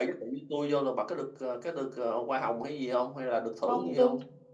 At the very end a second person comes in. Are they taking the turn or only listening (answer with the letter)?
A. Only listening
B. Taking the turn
B